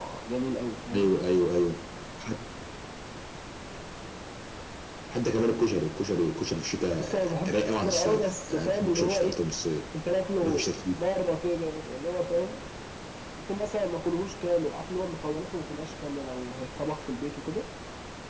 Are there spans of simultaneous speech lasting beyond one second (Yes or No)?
Yes